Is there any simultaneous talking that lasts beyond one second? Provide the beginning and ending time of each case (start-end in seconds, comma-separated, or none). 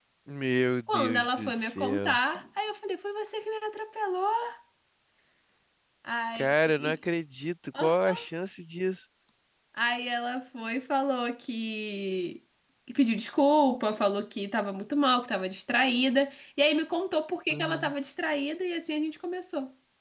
0.9-2.2